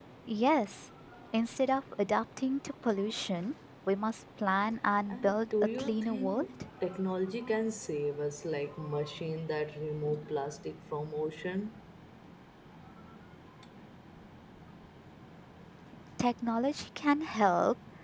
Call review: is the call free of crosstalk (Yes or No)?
No